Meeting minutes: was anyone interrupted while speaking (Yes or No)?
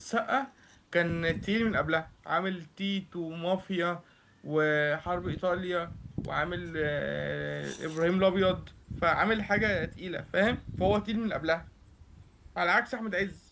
No